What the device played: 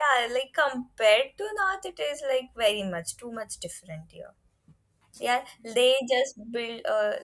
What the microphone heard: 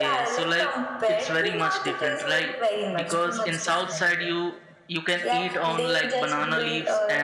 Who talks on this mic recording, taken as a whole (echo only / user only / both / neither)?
both